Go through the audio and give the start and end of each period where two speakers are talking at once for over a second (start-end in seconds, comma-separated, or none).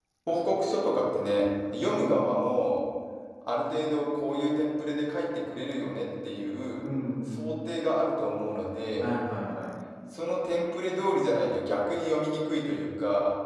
none